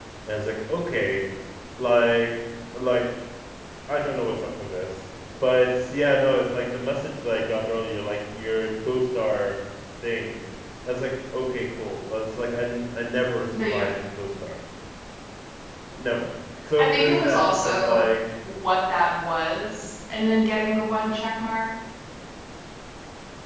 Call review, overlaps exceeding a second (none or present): present